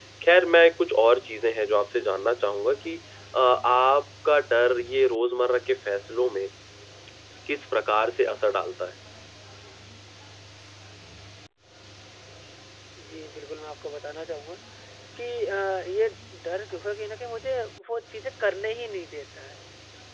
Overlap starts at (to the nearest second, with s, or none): none